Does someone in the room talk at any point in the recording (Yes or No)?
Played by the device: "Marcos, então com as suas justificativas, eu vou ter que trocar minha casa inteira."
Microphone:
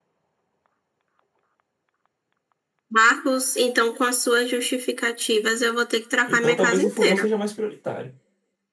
Yes